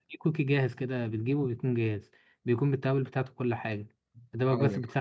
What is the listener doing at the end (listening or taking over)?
listening